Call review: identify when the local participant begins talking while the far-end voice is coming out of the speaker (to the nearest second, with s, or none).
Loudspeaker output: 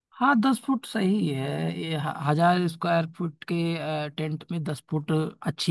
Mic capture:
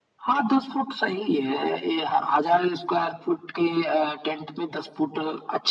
none